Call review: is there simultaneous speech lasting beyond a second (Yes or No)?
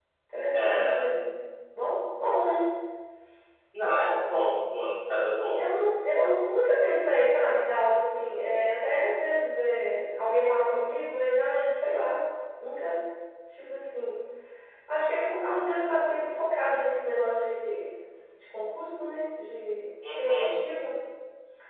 No